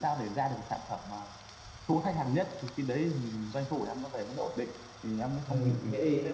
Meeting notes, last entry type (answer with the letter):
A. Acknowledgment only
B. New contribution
B